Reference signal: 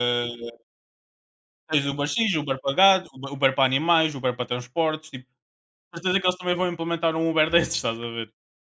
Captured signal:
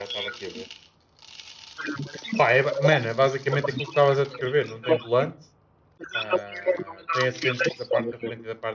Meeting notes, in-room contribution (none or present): present